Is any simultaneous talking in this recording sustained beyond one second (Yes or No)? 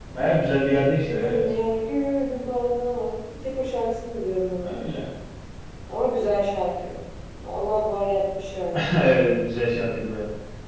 No